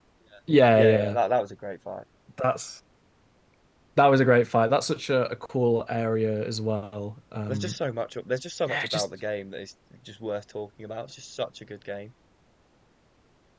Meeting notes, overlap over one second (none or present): none